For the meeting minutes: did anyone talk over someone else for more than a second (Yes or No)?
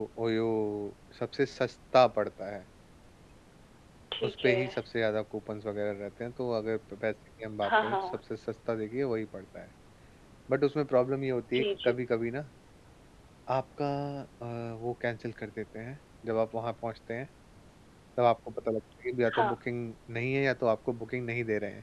No